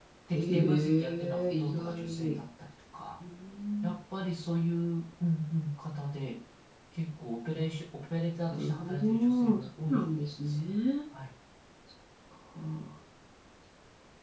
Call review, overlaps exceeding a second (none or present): present